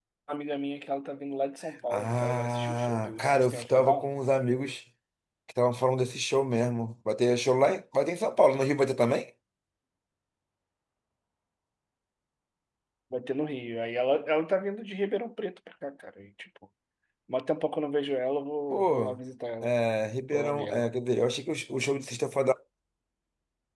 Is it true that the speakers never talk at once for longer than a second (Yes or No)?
No